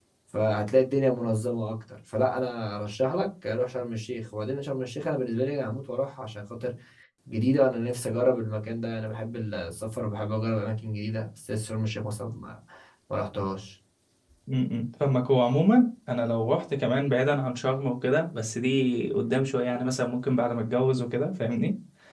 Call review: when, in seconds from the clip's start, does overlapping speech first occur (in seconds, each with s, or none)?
none